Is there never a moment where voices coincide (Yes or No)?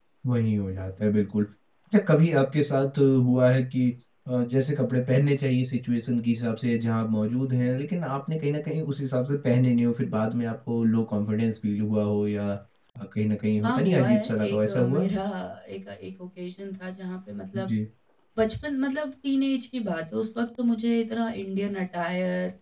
No